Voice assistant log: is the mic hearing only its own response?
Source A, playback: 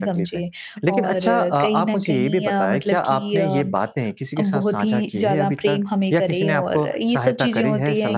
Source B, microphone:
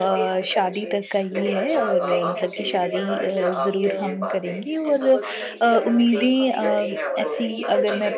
No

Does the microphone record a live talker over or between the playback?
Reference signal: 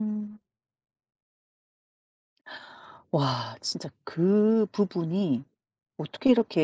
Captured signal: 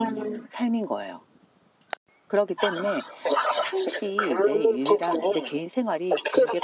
Yes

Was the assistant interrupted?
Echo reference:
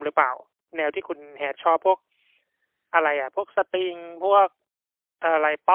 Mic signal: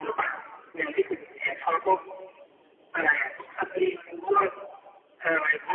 No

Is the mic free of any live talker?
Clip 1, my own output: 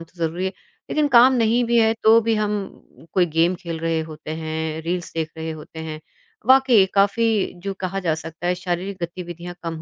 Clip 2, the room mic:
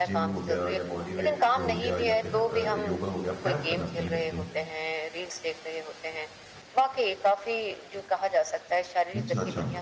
No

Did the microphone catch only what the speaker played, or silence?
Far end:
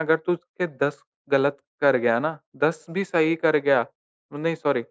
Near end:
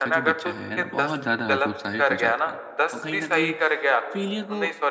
No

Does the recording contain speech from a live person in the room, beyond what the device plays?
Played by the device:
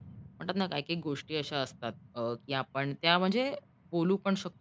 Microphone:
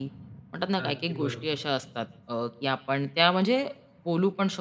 Yes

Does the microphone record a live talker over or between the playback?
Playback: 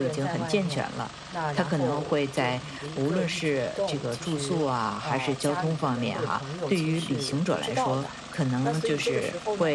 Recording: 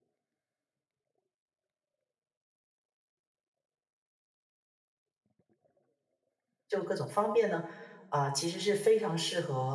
Yes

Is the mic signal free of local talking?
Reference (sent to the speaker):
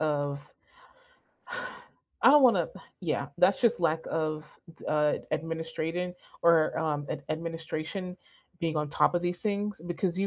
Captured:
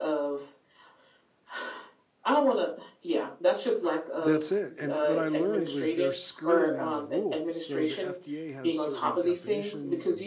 No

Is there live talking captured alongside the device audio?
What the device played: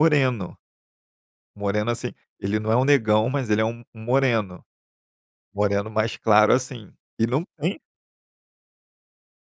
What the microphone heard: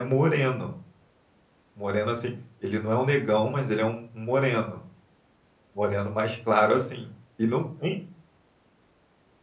No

